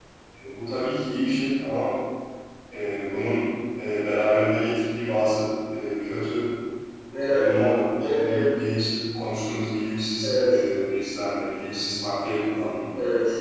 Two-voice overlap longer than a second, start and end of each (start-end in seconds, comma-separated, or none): none